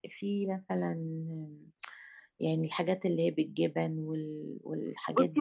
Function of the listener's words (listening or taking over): taking over